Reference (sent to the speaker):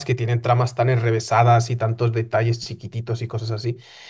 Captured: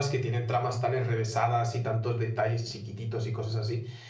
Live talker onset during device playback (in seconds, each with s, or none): none